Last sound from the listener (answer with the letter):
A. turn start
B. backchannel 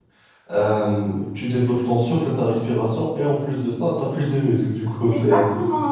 A